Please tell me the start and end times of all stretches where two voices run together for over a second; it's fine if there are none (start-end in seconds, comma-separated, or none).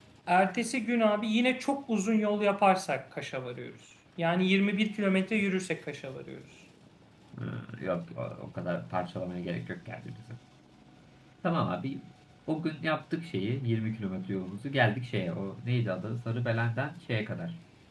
none